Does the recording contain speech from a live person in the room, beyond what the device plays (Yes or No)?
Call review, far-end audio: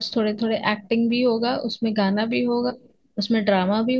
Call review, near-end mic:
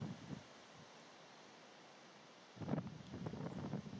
No